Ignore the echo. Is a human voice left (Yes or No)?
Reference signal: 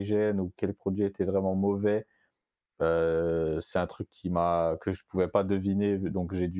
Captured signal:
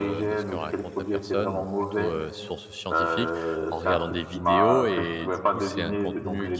Yes